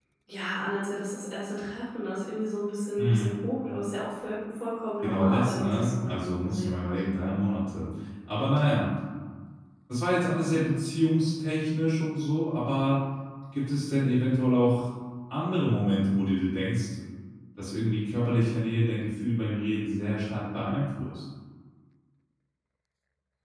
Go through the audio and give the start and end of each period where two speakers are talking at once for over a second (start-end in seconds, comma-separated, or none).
5.0-6.9